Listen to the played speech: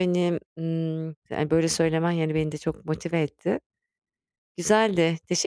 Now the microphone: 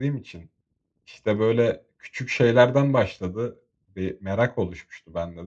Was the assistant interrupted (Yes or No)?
Yes